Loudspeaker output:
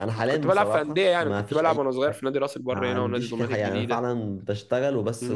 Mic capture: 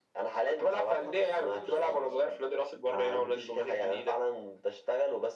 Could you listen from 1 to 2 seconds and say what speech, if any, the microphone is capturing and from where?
both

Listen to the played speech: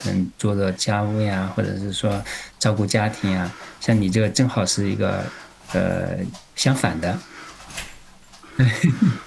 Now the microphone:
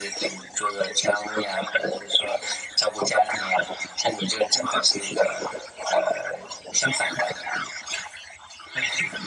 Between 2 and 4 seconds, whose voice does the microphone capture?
echo only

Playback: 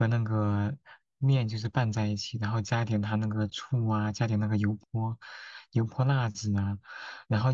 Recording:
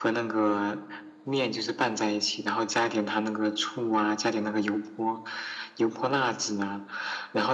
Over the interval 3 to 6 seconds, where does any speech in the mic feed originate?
echo only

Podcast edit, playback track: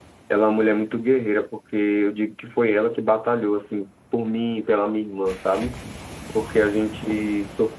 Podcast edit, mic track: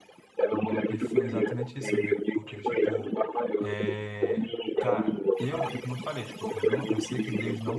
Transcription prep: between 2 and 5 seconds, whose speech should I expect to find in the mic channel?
both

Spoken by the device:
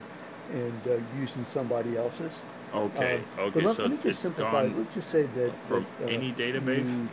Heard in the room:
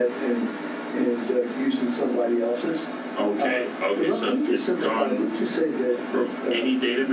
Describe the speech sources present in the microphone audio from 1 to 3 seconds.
echo only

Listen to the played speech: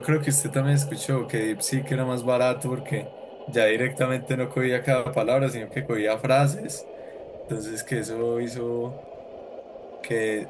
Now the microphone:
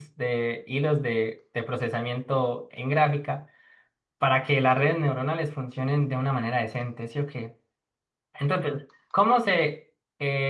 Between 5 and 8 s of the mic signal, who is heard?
user only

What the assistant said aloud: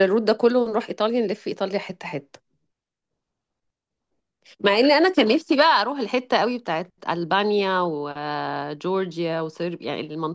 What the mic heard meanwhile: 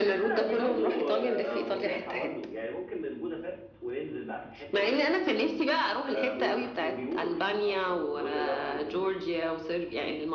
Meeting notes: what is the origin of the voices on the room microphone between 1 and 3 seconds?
both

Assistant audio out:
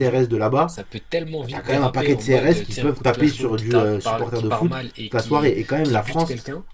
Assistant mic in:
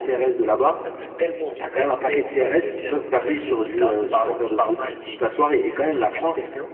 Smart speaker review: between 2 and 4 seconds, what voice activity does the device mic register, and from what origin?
echo only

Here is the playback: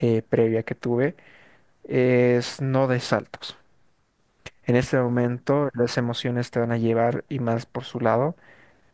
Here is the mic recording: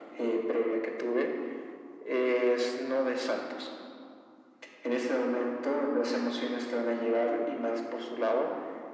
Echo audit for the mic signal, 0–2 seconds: echo only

